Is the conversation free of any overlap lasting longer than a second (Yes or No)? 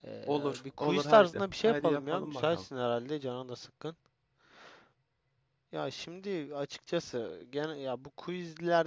No